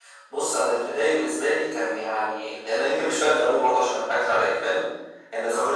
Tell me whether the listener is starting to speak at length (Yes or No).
No